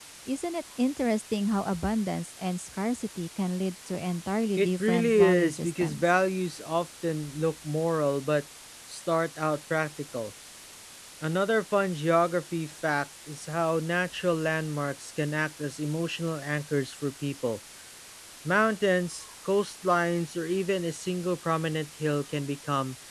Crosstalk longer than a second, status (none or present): present